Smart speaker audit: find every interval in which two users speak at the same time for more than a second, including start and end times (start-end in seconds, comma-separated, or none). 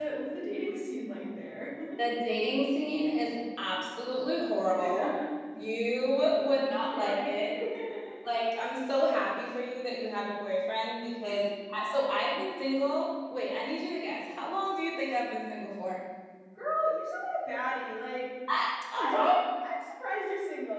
6.3-7.5